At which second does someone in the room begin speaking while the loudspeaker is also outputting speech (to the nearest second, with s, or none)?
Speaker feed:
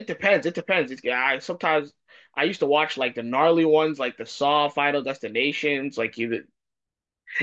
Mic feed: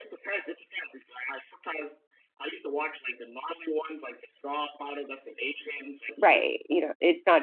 6 s